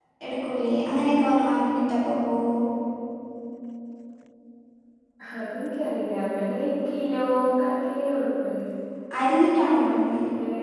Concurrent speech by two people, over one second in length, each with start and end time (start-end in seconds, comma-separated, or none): none